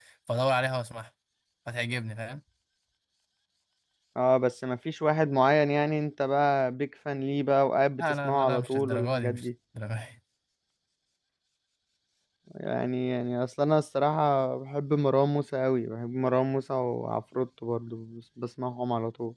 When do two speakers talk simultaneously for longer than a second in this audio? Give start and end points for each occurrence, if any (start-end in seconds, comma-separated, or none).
8.0-9.5